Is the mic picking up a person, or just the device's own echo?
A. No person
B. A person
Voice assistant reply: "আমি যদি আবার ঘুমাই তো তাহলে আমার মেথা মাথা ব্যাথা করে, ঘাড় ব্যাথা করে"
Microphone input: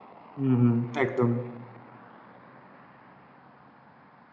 B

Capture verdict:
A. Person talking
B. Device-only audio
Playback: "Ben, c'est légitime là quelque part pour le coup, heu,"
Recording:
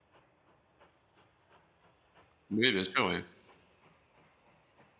A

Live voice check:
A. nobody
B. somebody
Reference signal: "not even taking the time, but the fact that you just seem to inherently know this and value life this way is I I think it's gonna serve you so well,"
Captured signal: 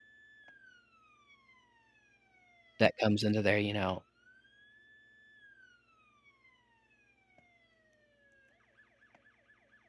B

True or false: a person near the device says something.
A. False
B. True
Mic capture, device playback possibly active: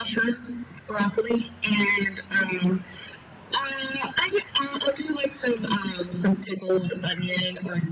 A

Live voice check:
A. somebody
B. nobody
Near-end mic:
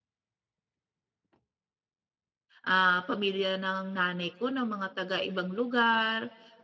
A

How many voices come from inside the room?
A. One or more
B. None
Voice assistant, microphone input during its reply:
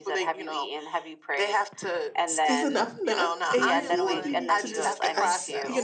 A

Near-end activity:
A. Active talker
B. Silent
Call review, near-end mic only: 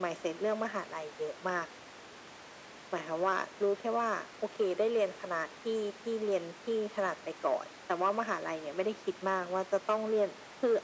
B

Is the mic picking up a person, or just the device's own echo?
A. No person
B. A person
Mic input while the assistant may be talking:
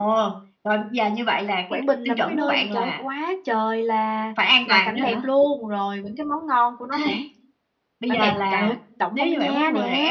B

